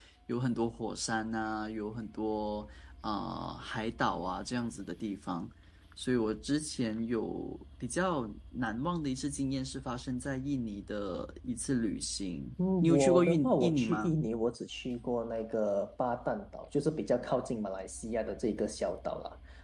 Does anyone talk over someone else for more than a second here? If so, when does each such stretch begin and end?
12.8-14.2

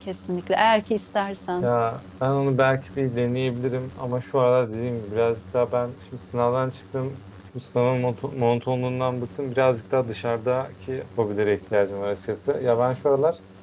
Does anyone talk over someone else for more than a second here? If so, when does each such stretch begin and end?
none

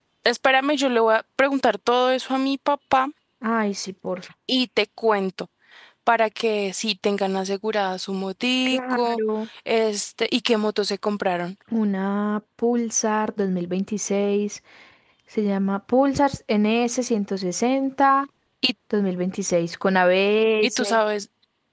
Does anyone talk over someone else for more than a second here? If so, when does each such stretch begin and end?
none

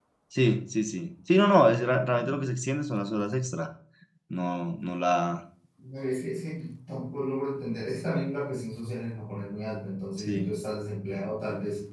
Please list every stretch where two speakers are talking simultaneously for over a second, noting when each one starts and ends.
none

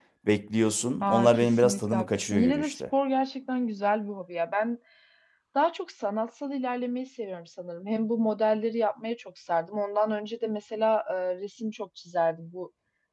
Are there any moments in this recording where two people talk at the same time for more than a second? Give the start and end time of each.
1.0-2.8

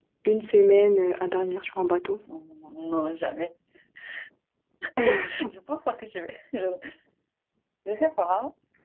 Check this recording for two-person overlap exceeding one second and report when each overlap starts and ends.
none

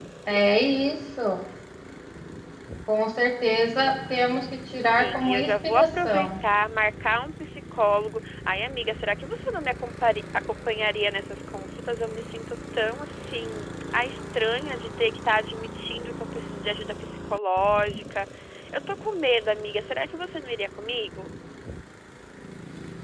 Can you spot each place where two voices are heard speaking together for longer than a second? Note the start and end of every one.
4.8-6.3

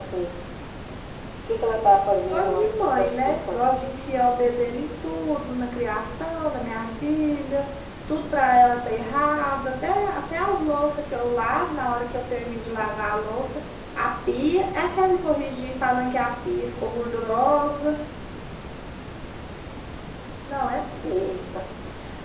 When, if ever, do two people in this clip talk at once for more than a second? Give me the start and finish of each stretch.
2.3-3.6

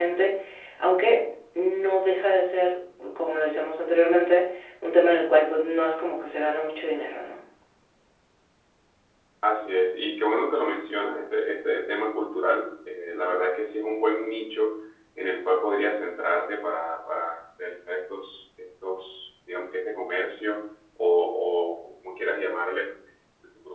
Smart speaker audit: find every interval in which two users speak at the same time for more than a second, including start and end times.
none

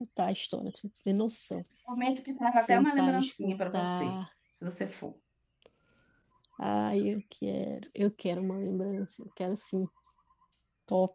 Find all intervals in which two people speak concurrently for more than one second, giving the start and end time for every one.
2.6-4.1

